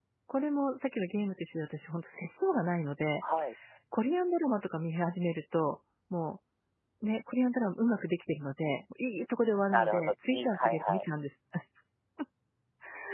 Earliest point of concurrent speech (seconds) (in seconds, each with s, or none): 9.7 s